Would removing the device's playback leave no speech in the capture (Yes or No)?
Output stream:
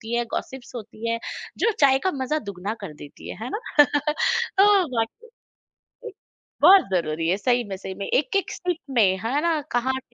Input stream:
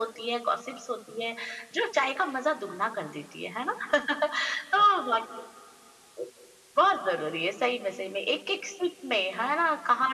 Yes